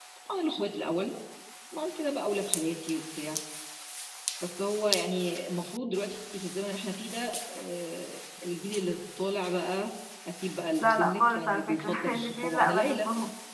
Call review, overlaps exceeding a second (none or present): present